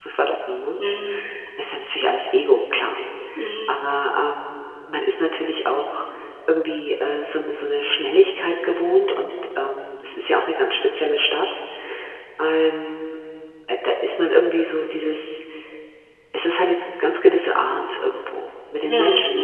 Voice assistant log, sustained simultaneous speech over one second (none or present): none